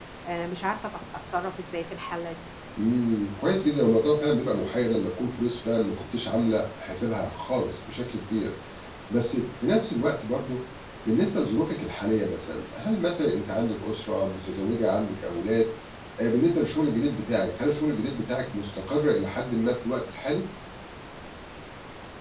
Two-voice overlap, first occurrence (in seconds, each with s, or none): none